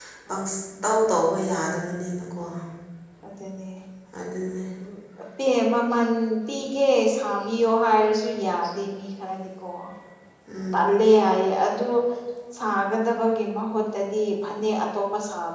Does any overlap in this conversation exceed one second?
No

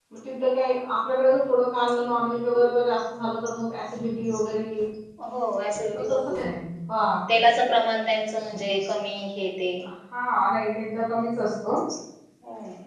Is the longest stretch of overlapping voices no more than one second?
Yes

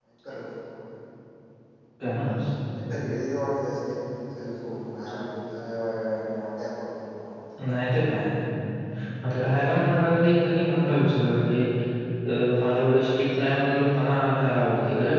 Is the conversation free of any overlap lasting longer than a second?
Yes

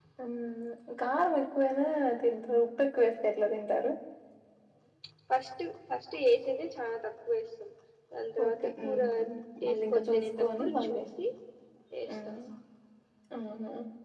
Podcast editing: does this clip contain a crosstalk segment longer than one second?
Yes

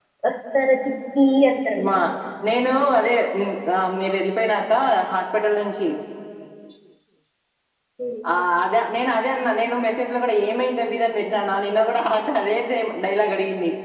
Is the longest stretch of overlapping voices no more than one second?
Yes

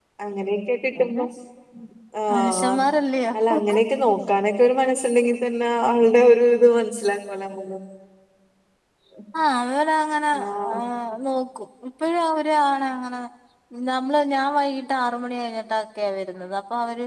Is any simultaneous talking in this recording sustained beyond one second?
No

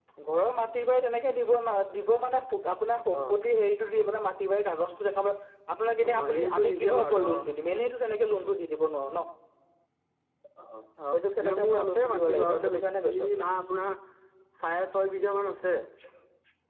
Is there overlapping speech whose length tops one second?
Yes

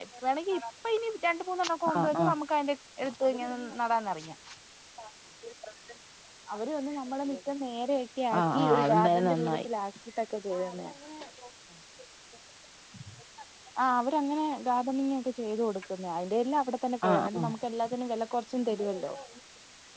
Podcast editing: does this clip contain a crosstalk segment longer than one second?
Yes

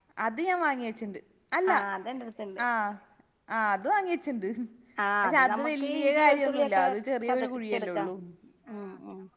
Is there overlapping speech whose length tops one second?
Yes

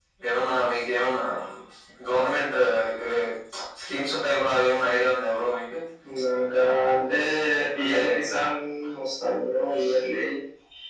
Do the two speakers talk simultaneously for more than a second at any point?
No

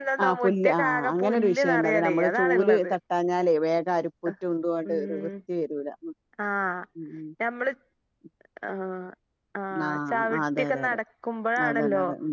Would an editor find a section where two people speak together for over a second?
Yes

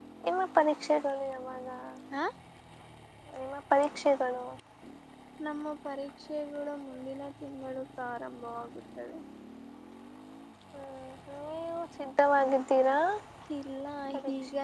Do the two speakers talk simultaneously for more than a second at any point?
No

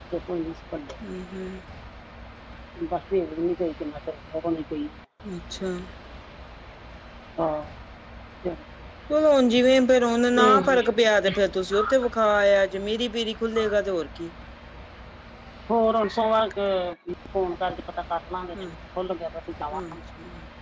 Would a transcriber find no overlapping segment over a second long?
Yes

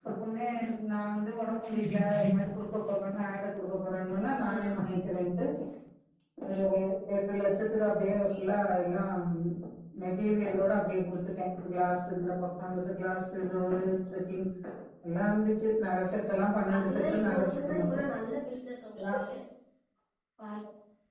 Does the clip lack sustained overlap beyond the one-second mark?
No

